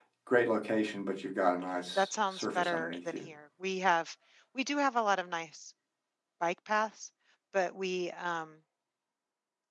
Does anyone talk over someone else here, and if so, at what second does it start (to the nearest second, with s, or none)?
2 s